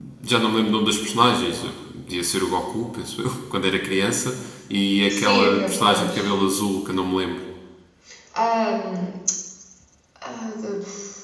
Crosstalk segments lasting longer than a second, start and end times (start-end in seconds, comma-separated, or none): 5.1-6.3